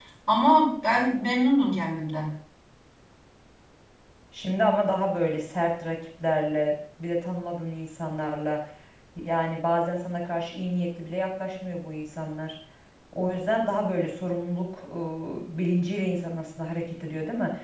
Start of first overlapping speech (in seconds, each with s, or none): none